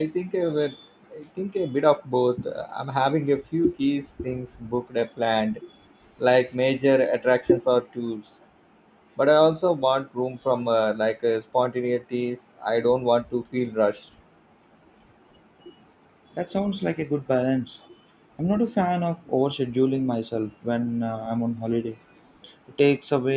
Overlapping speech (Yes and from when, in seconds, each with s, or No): No